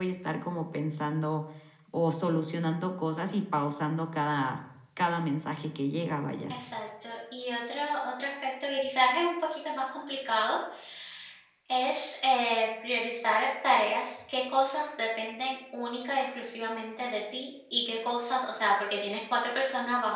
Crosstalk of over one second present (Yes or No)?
No